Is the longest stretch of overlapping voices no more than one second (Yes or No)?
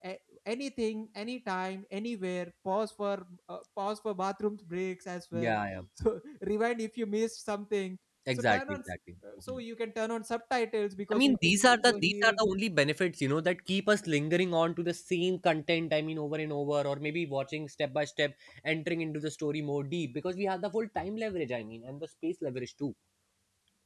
No